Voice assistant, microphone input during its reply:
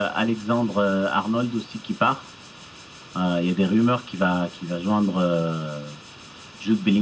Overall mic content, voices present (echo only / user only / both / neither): echo only